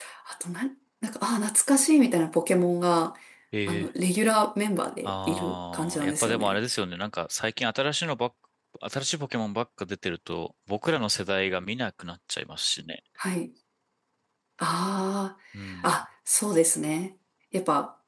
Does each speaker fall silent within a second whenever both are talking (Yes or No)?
No